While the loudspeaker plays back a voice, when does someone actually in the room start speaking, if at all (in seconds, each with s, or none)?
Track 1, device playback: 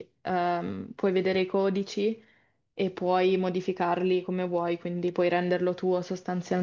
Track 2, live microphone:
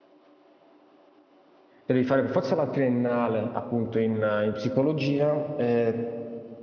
1.8 s